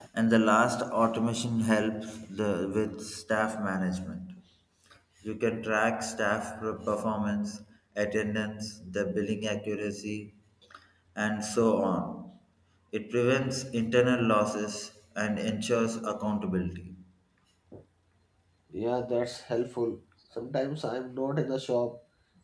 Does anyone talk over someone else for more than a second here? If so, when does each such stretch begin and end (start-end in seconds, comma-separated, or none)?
none